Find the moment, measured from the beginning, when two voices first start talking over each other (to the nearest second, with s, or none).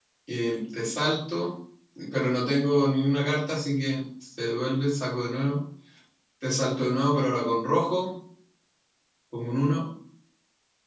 none